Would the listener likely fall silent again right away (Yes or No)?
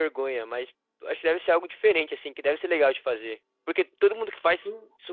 Yes